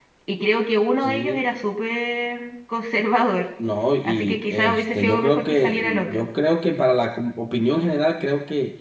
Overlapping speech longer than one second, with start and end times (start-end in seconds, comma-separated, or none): 4.0-6.3